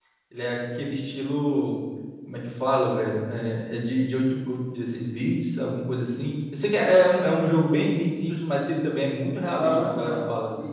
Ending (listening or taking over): taking over